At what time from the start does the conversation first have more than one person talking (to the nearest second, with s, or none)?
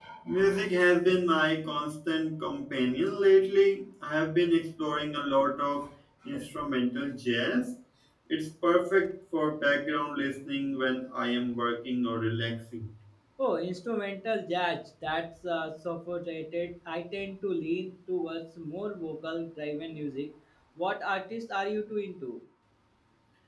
none